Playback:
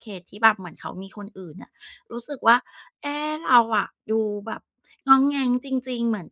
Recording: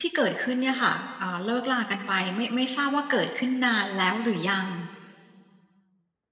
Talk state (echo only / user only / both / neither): user only